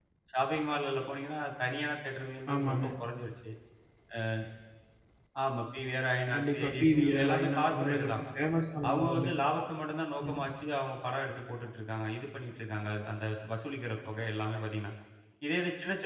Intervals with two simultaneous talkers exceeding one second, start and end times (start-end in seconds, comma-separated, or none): 6.3-8.1